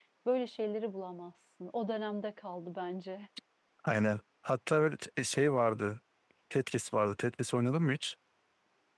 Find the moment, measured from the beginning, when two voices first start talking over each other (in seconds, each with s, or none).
none